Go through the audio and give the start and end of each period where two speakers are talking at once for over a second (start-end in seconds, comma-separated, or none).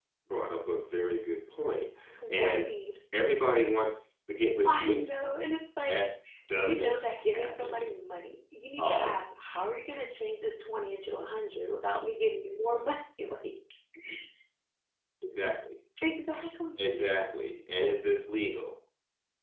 6.5-7.8